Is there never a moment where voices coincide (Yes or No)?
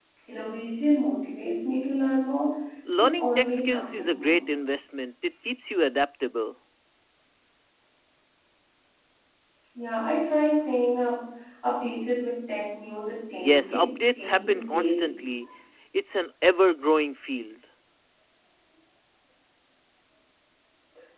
No